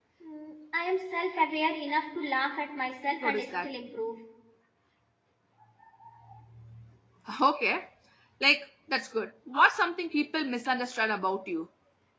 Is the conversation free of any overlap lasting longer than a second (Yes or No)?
Yes